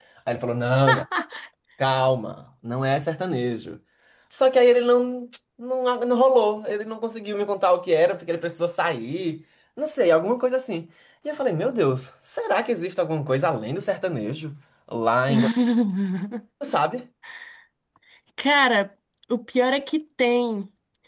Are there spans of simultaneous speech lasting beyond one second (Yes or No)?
No